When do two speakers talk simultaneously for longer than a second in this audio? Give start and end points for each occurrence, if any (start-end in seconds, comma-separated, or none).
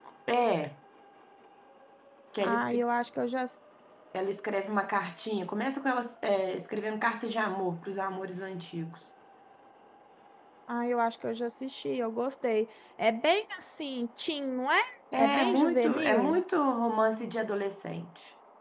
15.1-16.4